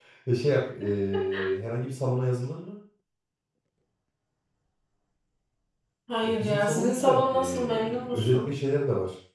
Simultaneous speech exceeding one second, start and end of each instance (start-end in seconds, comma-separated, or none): 6.2-8.5